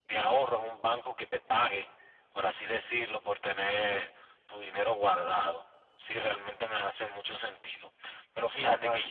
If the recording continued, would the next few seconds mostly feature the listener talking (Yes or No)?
Yes